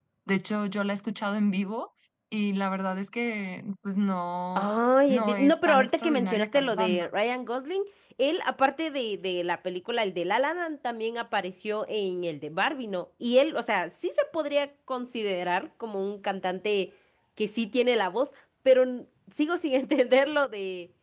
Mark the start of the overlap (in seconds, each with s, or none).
5.1 s